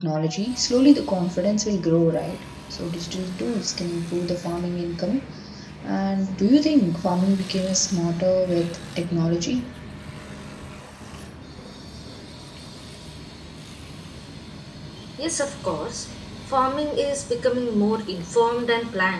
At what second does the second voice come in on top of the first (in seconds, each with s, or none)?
none